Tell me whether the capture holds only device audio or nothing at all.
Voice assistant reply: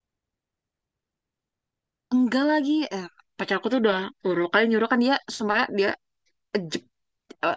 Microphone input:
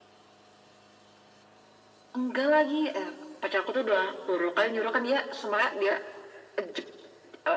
Yes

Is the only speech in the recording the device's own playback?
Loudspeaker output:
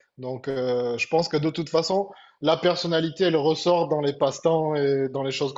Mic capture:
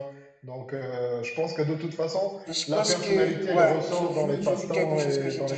No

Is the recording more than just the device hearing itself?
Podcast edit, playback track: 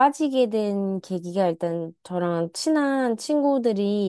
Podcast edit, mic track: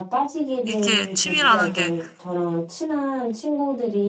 Yes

